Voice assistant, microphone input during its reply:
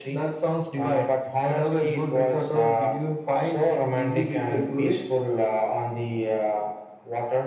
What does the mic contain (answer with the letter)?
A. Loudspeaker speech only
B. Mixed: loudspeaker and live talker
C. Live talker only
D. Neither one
A